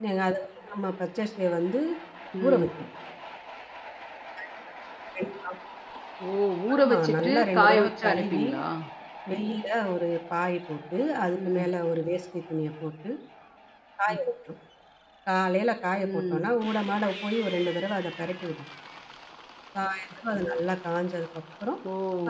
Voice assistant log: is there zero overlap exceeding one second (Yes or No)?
No